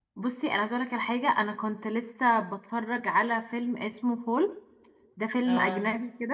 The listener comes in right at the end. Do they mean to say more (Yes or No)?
No